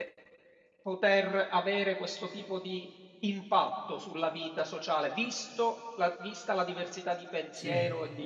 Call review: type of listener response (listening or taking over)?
listening